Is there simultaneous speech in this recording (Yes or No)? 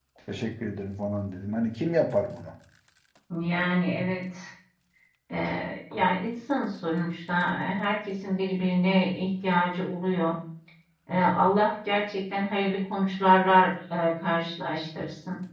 No